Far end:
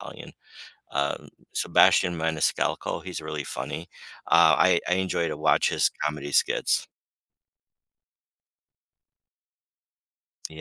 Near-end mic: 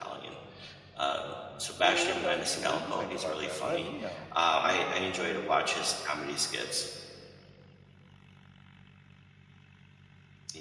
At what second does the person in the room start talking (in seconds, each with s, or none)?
1.8 s